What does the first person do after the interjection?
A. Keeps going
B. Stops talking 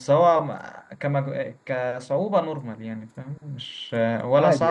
B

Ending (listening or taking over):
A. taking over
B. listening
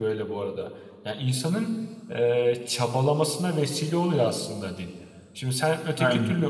B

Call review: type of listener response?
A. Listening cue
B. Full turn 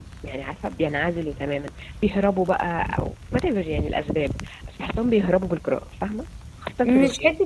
B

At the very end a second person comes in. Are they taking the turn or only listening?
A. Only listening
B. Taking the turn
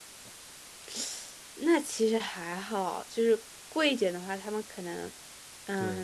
B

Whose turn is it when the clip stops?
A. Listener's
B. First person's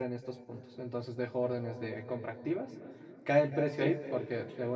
B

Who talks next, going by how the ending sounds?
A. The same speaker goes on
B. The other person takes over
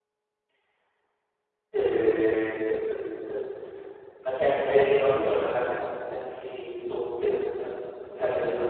B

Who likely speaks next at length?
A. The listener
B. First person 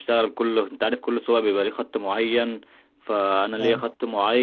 B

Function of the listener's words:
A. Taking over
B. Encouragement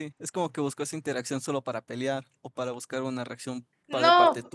A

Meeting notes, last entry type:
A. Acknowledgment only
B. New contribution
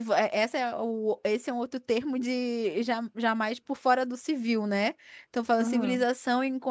A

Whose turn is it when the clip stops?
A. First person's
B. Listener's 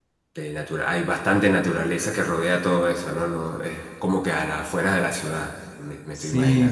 B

